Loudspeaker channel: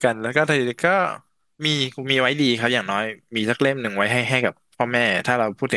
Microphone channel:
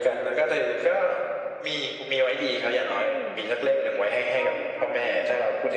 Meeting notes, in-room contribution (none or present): present